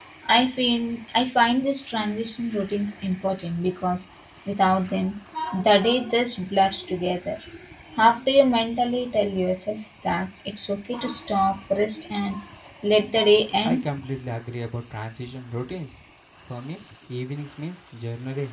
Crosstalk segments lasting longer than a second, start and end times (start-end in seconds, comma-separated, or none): none